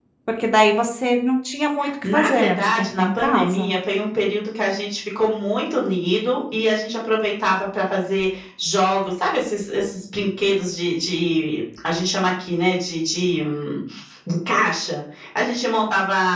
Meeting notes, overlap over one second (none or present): present